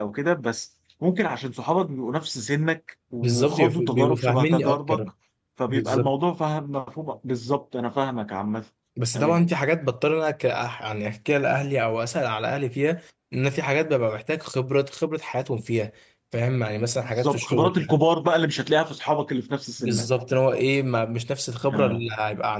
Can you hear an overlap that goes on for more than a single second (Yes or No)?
Yes